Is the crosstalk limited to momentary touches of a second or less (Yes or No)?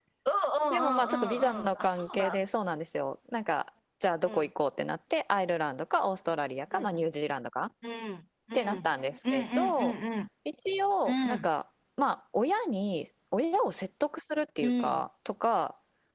No